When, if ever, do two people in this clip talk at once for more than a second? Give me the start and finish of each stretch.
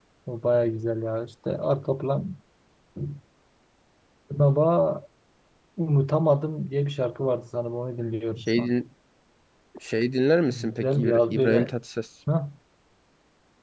10.5-11.7

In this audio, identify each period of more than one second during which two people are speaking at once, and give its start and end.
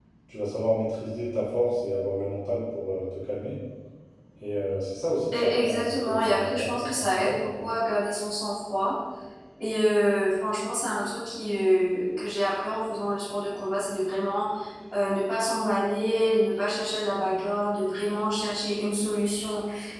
5.3-7.6

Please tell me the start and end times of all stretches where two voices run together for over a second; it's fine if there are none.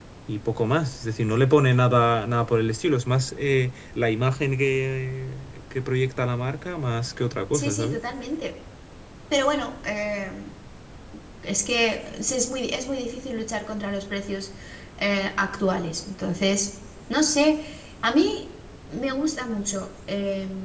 none

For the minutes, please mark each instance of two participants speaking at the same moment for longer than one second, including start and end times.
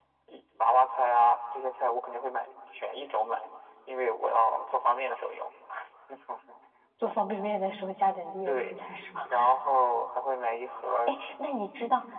none

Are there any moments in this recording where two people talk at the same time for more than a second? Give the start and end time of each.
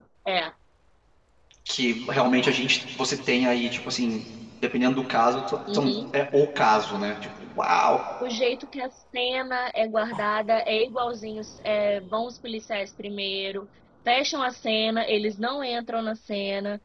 none

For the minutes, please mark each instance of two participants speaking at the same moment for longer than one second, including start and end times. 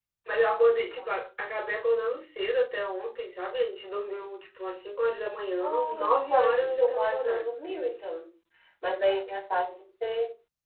5.6-7.5

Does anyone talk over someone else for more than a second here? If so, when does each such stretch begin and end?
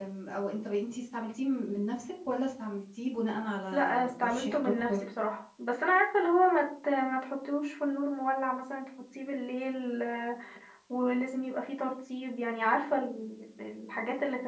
3.7-5.0

